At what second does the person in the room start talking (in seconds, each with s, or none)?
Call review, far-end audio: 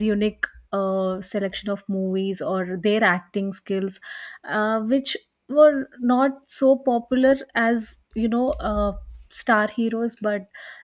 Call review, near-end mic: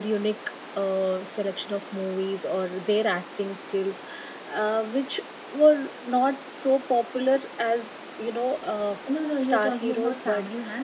9.1 s